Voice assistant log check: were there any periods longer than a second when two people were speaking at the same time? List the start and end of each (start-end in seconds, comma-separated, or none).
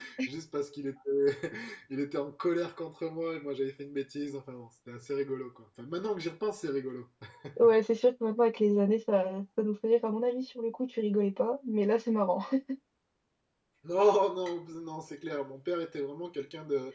none